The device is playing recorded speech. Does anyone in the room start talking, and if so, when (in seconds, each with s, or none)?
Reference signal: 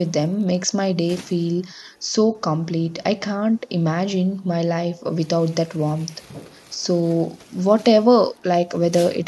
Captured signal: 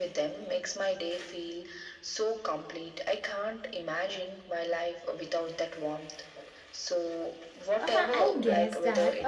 7.8 s